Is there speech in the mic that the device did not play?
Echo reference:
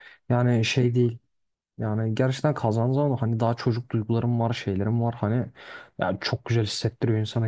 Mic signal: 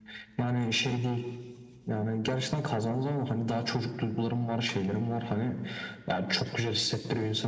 No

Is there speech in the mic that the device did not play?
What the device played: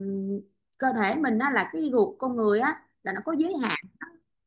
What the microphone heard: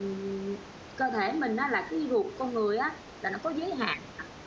No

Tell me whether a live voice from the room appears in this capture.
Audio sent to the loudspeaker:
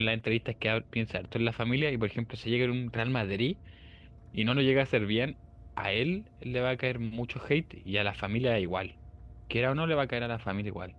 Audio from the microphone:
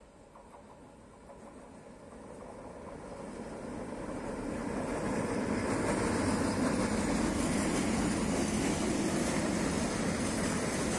No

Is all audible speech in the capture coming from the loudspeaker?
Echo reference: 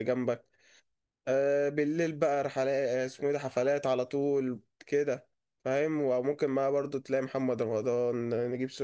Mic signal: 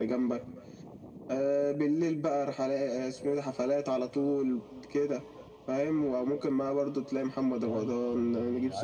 No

